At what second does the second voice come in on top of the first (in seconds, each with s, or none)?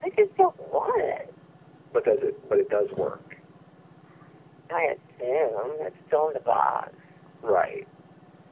none